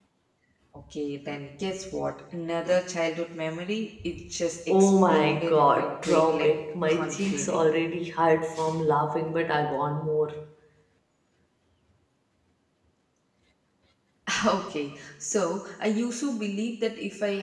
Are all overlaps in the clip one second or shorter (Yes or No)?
No